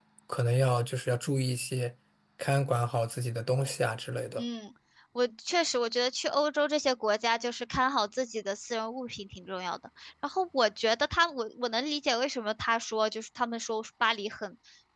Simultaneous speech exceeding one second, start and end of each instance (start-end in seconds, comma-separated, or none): none